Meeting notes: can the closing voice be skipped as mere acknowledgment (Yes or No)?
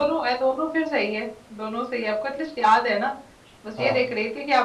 Yes